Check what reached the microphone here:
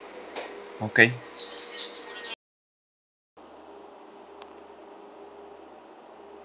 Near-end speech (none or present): present